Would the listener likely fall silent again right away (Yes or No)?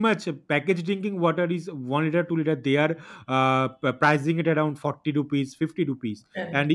Yes